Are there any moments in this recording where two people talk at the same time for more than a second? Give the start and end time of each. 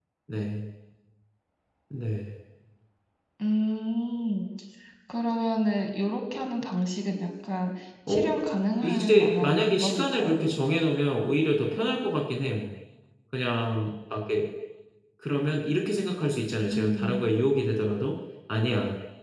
8.8-10.4

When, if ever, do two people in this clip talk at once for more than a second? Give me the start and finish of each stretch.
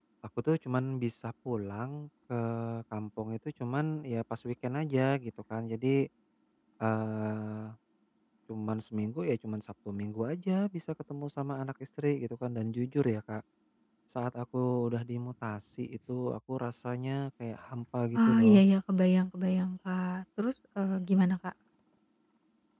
none

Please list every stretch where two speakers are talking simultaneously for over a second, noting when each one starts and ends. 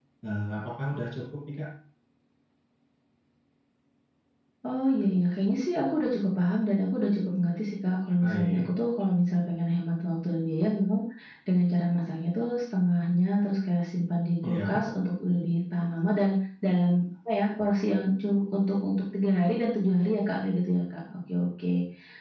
none

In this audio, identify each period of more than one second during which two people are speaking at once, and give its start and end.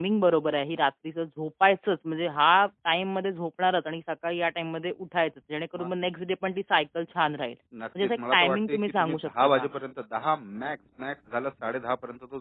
8.0-9.7

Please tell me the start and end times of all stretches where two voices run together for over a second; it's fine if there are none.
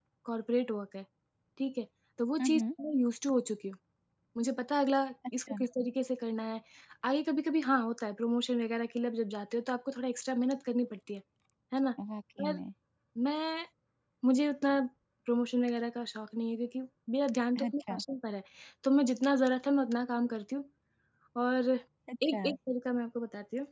none

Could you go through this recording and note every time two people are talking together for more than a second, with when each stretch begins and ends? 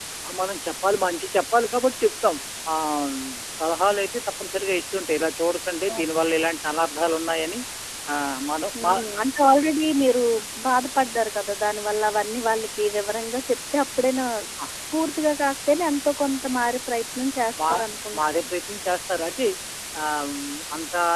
none

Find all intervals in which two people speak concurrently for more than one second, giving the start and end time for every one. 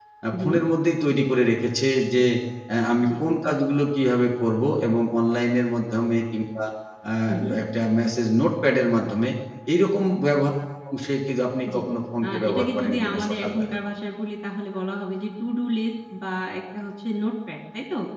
12.2-13.8

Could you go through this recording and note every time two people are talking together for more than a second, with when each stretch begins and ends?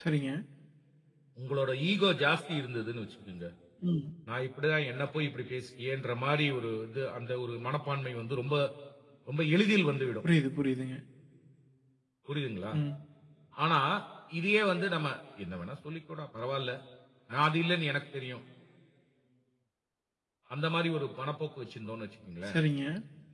none

